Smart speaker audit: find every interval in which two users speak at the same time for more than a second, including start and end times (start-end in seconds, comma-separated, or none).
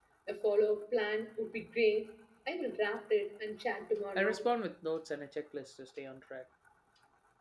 none